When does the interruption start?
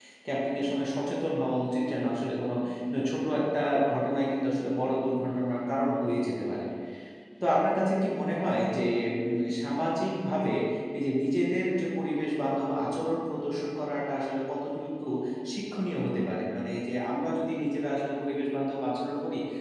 none

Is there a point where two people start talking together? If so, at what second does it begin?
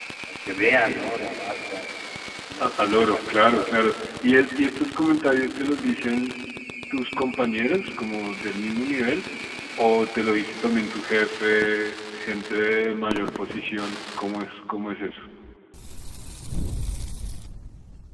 2.6 s

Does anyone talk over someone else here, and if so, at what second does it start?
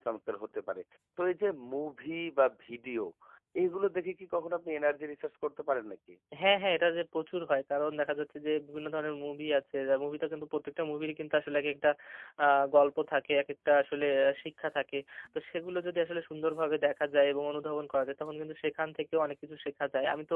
none

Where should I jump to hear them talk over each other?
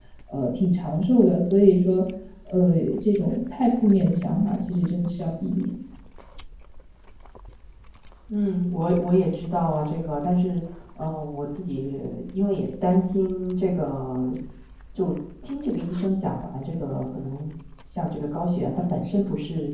none

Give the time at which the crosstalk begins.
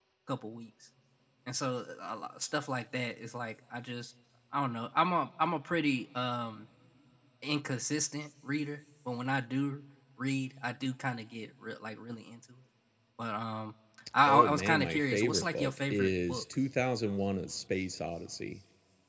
14.3 s

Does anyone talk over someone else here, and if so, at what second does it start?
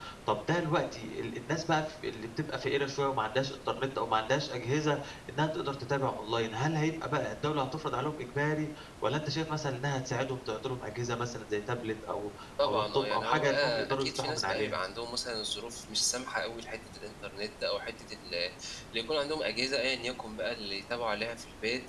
12.6 s

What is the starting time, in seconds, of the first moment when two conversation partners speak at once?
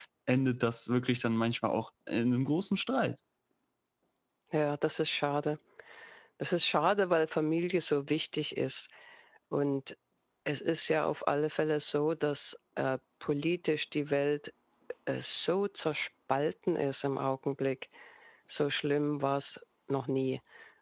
none

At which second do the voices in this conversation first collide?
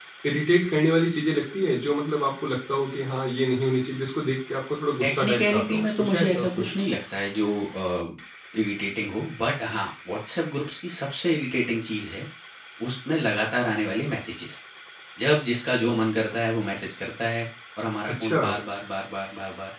5.0 s

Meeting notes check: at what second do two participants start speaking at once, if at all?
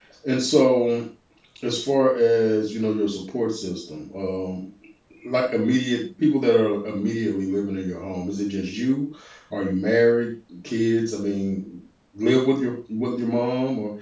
none

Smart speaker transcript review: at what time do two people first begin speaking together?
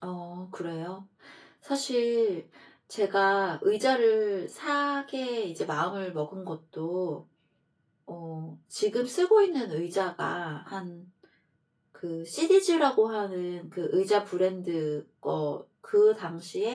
none

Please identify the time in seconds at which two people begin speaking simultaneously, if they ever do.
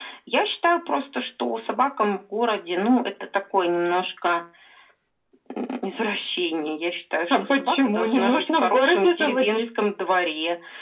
7.3 s

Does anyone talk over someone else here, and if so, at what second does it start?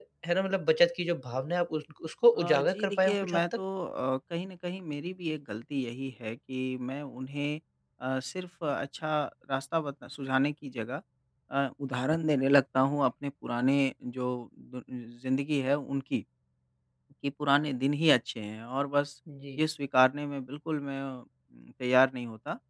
2.4 s

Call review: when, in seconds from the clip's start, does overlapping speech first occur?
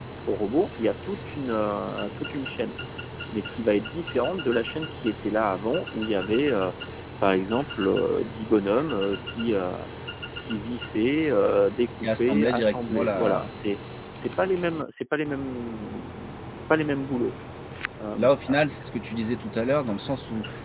12.0 s

